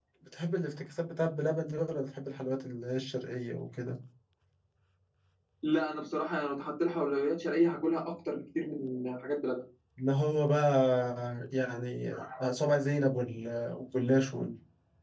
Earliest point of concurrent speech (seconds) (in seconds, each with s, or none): none